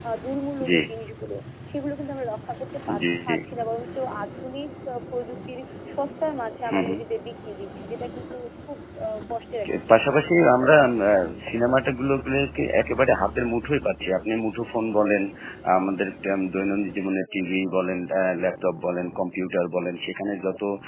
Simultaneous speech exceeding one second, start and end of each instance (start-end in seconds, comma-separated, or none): none